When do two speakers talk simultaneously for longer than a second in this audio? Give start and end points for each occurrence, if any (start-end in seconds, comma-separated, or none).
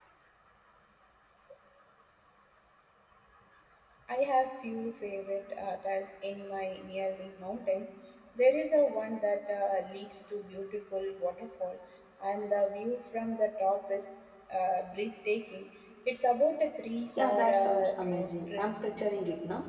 17.2-18.7